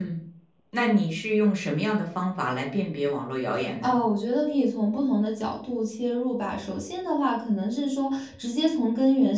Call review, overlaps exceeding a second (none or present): none